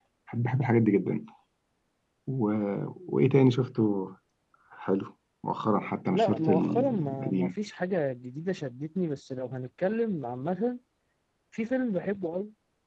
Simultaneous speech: Yes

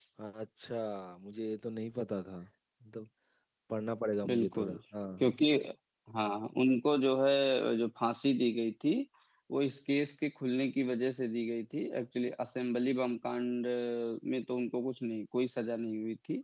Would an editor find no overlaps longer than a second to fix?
Yes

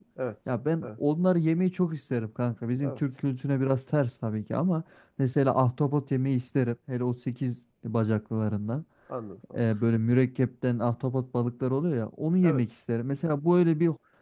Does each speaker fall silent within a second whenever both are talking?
Yes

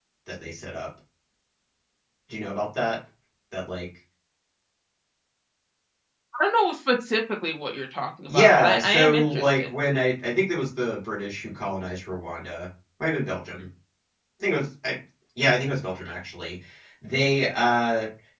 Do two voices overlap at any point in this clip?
Yes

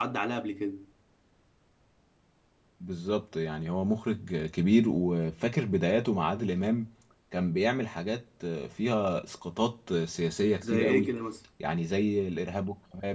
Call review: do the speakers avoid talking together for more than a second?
Yes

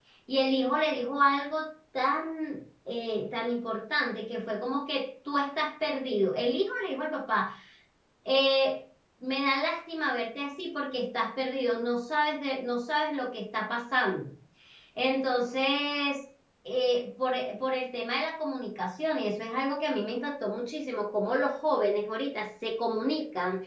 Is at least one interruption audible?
No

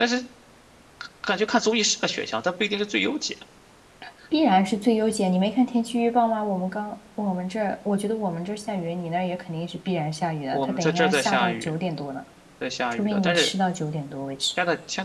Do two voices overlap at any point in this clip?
Yes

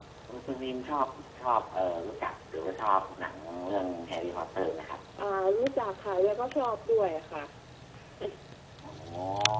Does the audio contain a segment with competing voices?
No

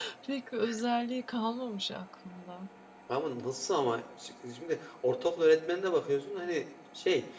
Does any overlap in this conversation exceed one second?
No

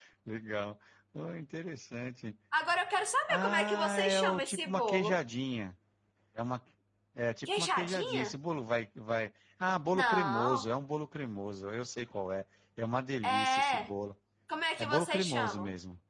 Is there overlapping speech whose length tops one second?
Yes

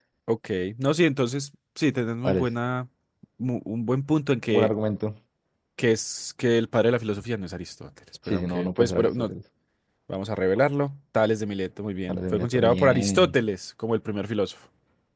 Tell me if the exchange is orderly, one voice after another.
No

